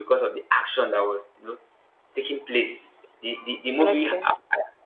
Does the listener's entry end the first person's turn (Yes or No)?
No